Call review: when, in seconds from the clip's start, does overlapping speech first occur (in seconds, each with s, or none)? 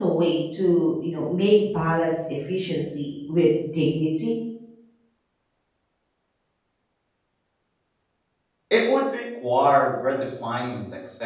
none